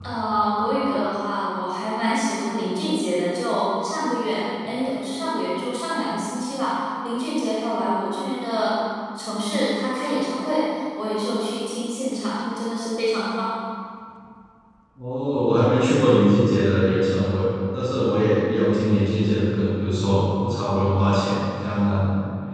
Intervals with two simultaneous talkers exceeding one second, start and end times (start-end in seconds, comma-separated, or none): none